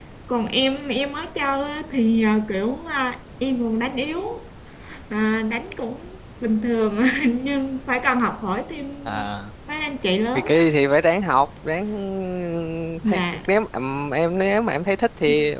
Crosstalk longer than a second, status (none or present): none